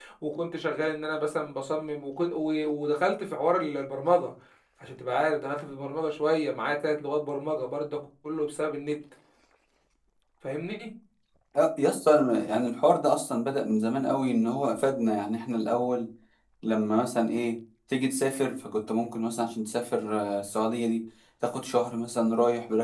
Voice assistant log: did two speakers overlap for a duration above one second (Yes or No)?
No